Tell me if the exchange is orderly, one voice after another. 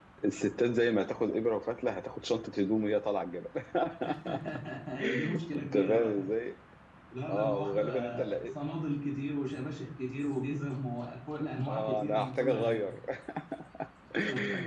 No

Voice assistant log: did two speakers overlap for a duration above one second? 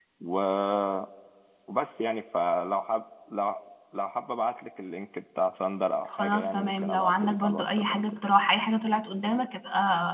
Yes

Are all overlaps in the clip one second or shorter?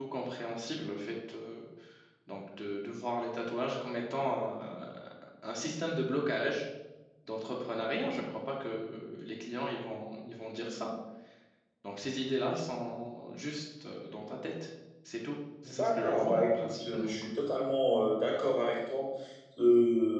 No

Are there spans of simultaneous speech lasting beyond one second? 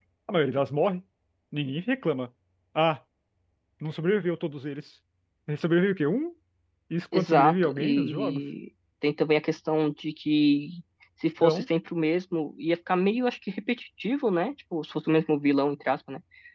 Yes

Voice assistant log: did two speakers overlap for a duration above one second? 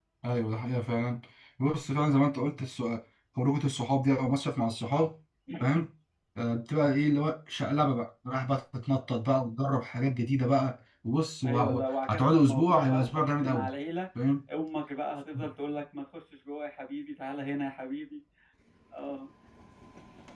Yes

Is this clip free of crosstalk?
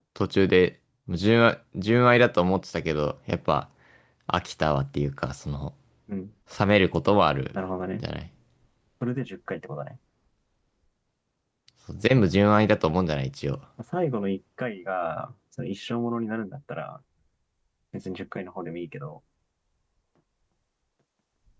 Yes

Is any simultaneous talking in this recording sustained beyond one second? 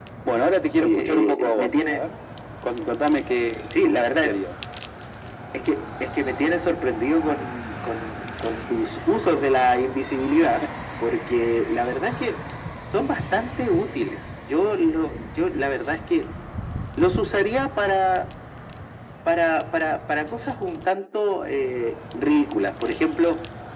Yes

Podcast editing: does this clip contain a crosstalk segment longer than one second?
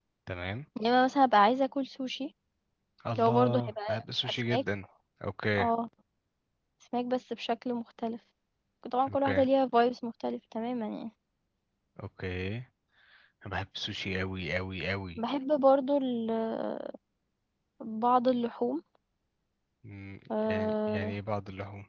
Yes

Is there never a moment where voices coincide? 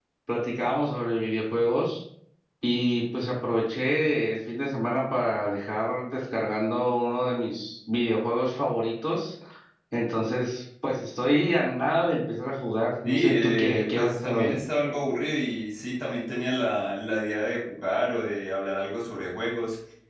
No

